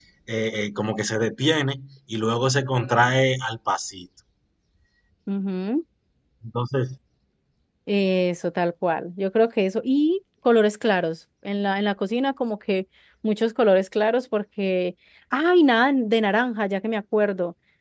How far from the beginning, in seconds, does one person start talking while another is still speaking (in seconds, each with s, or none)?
none